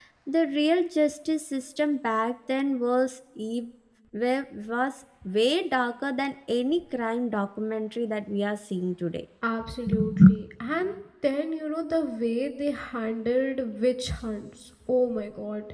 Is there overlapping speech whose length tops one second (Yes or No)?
No